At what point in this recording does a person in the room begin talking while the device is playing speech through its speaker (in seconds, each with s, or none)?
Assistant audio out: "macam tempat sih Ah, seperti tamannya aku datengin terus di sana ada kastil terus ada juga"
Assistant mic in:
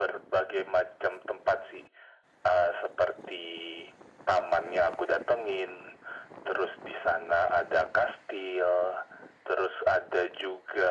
none